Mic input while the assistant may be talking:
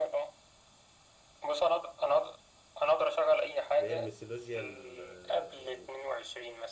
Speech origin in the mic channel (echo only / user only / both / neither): both